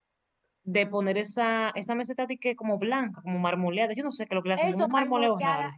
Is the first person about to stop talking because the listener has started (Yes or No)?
Yes